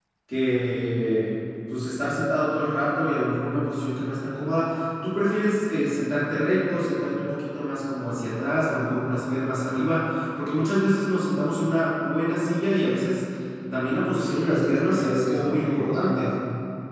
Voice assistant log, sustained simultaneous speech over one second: present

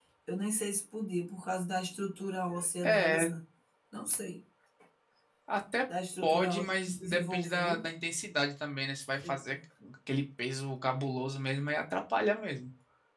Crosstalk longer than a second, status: present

